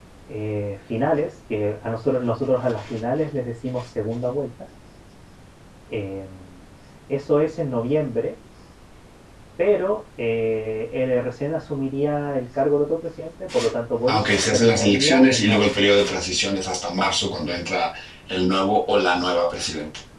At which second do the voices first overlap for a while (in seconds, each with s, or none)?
14.1 s